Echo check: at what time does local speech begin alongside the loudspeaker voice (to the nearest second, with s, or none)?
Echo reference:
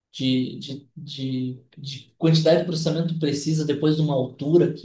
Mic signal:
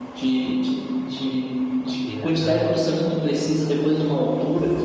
2 s